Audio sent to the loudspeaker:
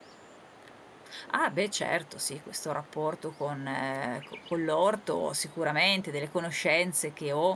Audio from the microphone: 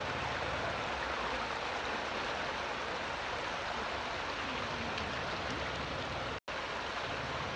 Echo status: none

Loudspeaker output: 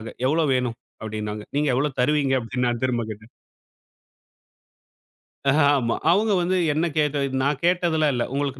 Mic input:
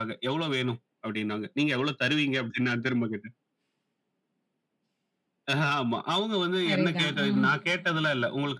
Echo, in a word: present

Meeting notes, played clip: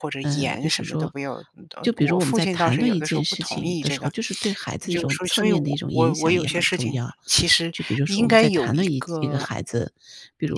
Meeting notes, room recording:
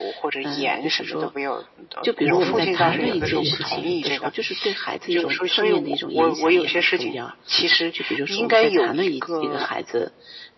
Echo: present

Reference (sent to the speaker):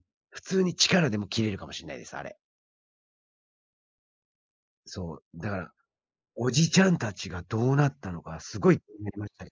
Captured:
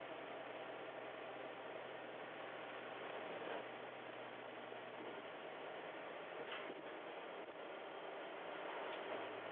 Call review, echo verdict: none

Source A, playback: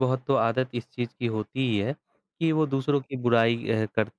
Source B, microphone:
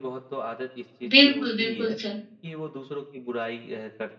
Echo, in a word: present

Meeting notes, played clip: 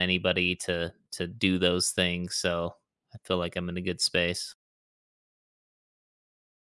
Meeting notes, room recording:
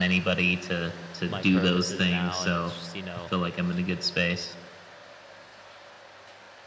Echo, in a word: present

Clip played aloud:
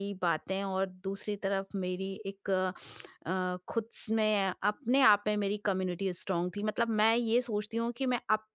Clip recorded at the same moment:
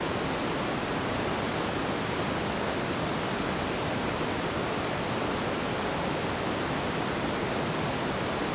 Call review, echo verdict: none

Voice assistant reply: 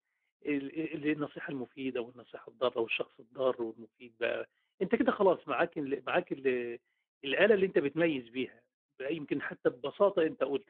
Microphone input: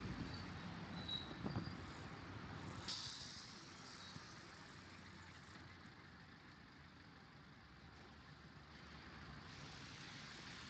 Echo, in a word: none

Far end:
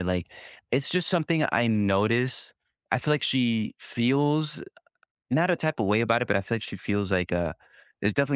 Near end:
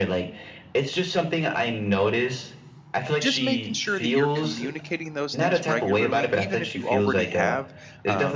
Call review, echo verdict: present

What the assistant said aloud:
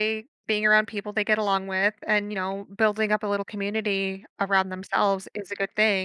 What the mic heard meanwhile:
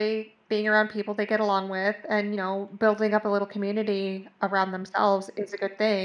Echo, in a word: present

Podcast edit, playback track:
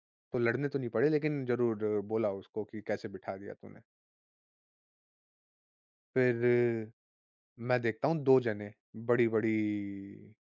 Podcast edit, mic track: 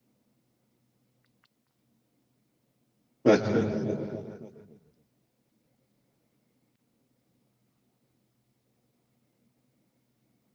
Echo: none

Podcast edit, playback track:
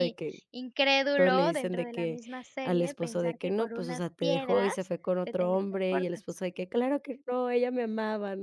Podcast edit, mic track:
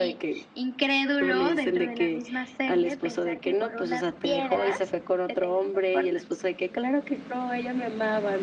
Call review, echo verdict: present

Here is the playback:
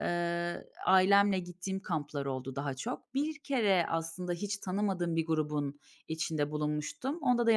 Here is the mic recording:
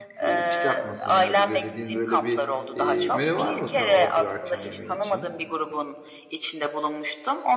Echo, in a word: present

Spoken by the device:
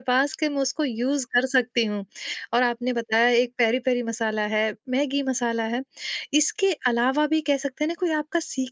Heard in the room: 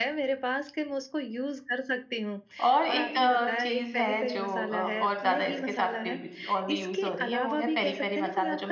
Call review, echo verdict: present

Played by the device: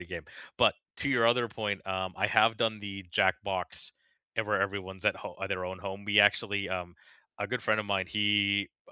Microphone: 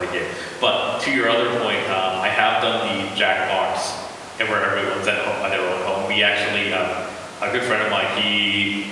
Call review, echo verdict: present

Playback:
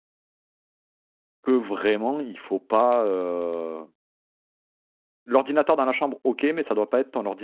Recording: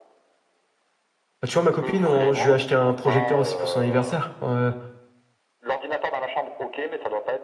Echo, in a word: present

